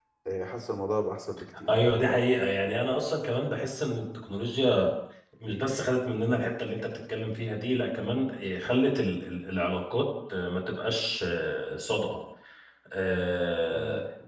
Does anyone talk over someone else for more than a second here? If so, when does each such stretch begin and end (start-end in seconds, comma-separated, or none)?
none